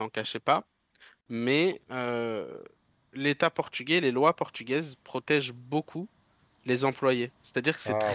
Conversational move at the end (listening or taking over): listening